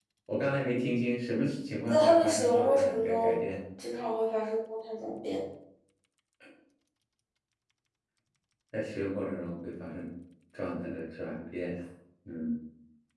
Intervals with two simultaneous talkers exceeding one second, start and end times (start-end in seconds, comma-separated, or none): 1.9-3.4